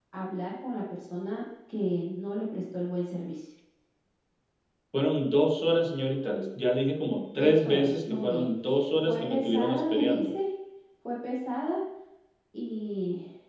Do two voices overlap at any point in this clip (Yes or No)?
Yes